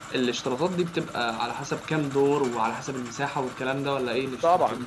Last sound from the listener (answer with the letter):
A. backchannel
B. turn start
B